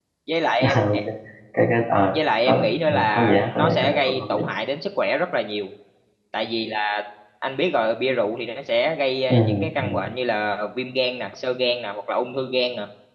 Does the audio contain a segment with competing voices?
Yes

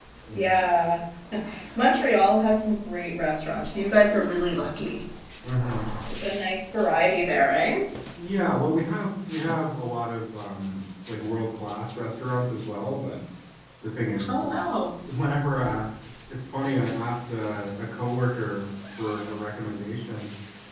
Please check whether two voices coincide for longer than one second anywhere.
No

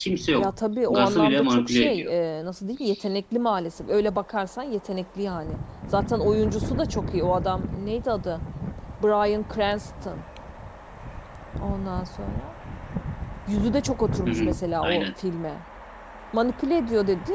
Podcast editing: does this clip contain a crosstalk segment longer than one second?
Yes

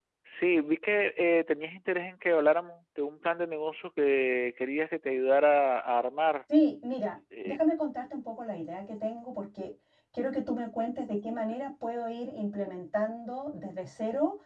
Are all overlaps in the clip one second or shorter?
Yes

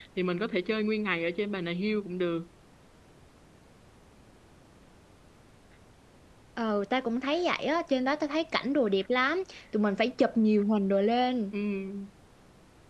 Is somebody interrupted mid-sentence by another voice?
No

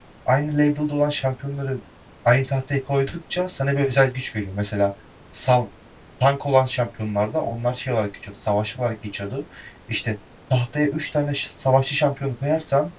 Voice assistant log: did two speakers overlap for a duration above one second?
No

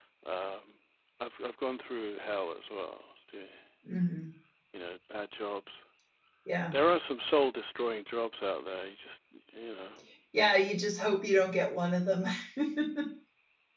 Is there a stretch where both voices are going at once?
No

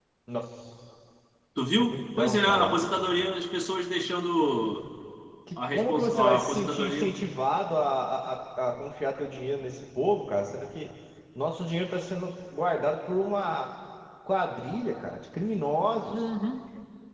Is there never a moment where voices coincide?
No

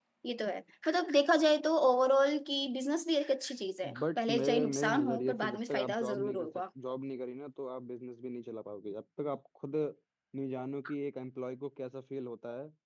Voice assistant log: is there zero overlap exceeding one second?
No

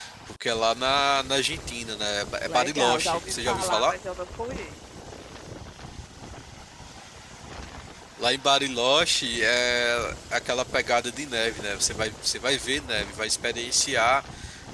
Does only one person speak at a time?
No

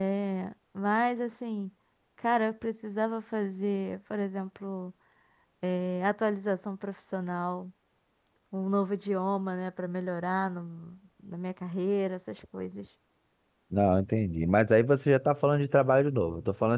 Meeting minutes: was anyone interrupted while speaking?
No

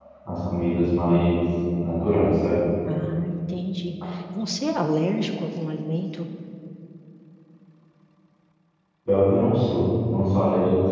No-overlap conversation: Yes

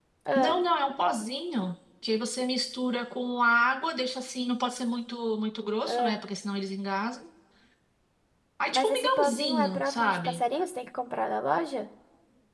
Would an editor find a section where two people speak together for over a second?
Yes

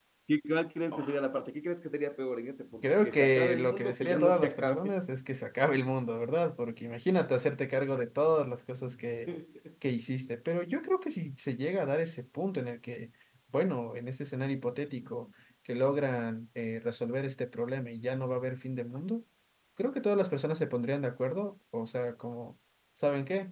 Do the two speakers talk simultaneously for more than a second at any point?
Yes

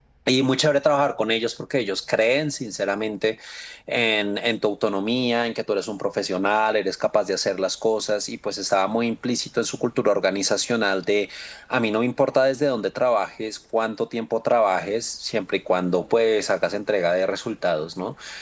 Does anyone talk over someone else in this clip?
No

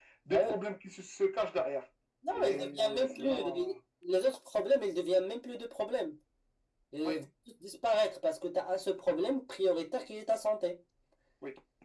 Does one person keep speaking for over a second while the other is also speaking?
Yes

